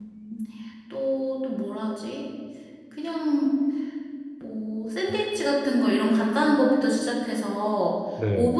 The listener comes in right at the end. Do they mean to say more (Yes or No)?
No